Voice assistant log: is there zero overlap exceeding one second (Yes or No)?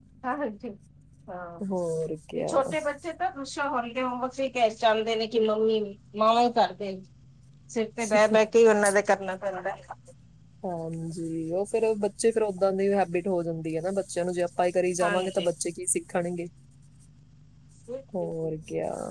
Yes